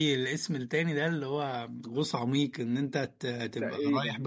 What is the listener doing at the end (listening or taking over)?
listening